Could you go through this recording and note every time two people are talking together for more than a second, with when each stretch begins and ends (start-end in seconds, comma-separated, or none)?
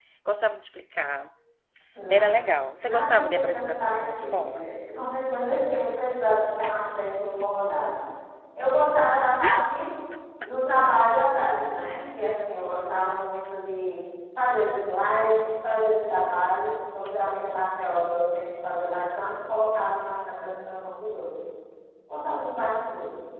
2.8-4.7